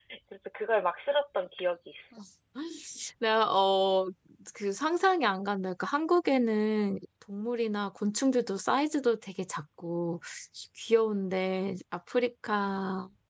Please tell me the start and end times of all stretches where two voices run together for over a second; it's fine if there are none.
none

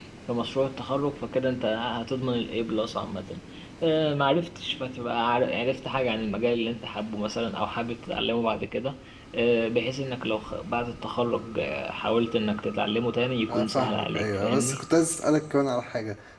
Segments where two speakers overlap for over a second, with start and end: 13.5-14.8

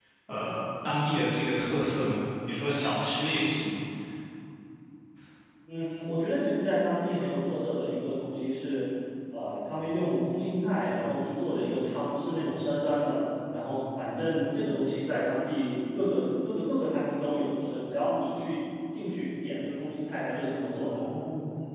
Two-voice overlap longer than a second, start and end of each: none

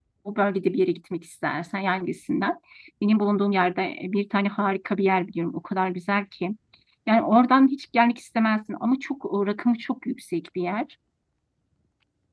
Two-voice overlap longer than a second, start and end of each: none

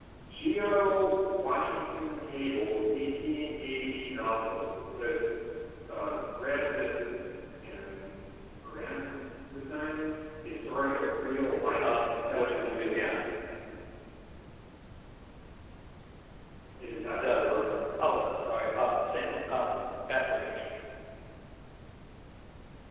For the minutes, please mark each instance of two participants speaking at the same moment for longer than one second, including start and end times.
11.8-13.2

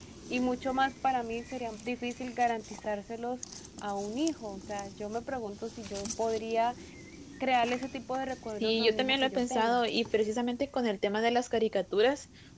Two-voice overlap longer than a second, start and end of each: 8.6-9.8

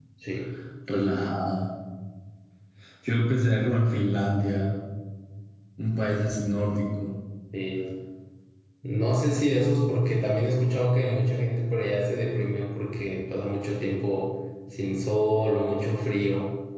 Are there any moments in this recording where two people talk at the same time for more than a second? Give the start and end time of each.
none

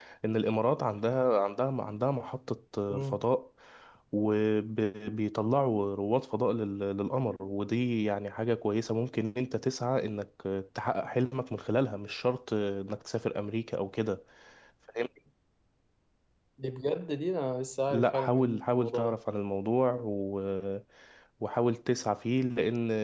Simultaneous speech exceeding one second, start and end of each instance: 17.9-19.2

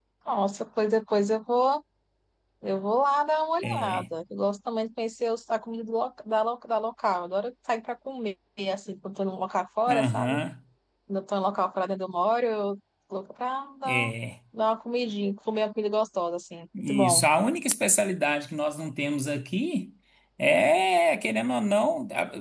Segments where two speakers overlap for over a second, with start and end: none

